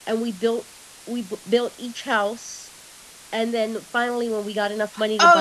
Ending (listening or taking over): taking over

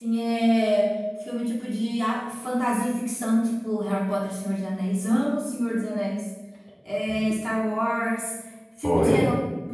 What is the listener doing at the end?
listening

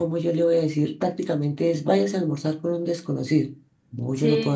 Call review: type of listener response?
taking over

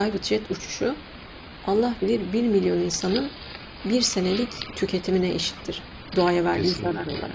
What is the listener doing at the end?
taking over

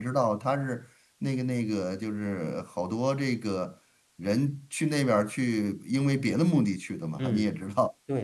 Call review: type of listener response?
taking over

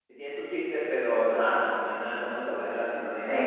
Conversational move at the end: taking over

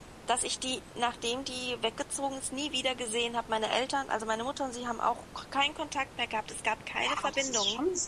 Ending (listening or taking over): taking over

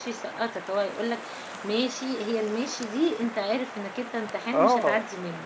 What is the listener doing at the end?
taking over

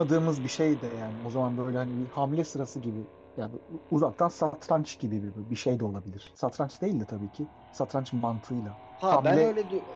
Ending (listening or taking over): taking over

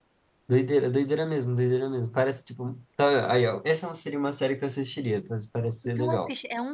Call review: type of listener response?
taking over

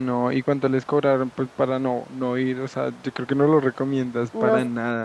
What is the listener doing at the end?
taking over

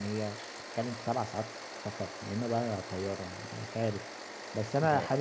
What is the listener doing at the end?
listening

